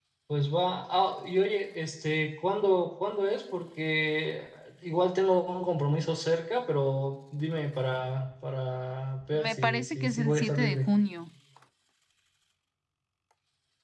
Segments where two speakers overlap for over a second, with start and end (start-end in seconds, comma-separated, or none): 9.3-10.9